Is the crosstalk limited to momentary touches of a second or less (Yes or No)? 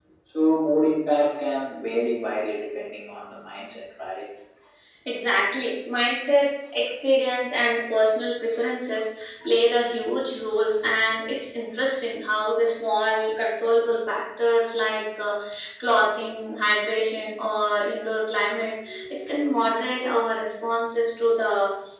Yes